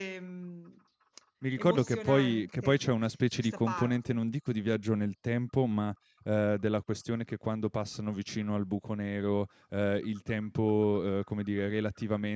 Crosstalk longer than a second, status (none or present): present